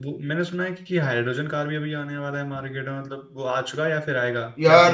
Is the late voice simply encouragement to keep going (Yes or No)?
No